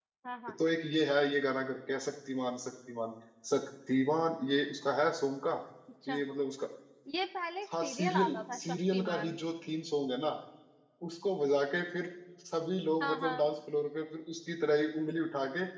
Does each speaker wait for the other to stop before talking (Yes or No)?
No